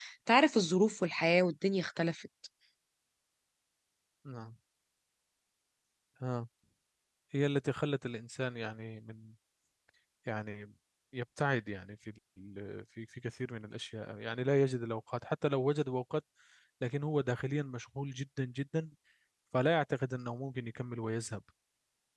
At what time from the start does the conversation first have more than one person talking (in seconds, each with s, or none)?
none